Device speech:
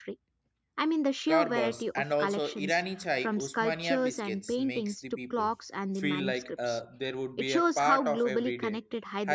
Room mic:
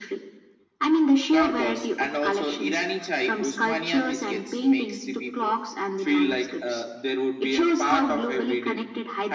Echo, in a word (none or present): present